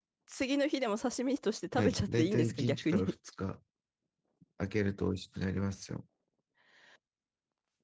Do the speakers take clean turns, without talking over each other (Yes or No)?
No